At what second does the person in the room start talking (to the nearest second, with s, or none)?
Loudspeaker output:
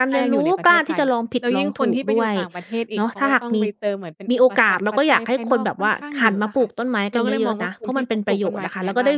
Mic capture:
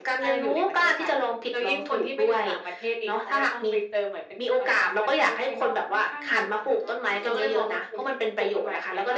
none